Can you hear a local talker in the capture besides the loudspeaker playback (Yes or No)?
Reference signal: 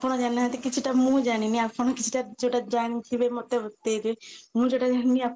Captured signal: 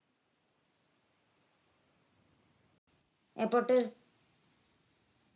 Yes